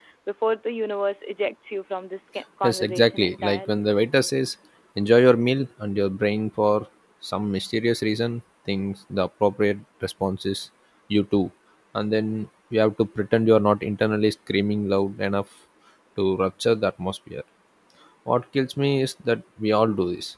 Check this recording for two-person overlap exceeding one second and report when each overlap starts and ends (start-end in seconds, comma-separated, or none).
2.6-3.8